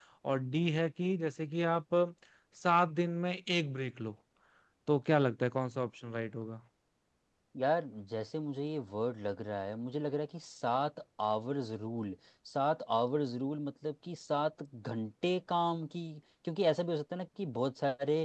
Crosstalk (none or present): none